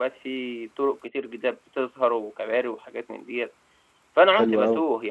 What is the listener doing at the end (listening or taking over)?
listening